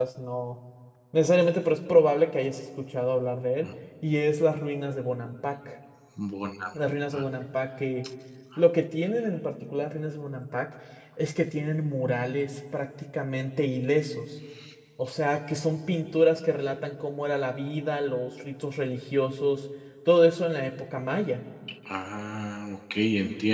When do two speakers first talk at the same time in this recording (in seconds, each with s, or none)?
none